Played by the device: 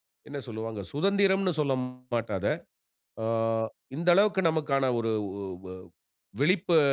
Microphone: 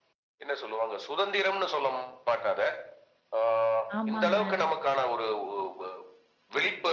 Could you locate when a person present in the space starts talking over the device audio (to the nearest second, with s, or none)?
4 s